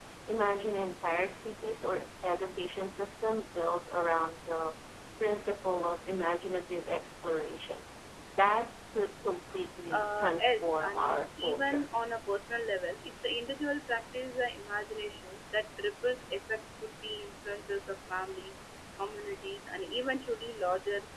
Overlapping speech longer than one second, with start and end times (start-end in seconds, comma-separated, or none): 9.9-11.9